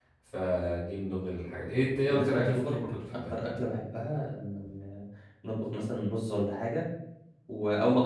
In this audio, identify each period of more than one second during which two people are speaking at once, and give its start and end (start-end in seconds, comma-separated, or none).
2.1-3.3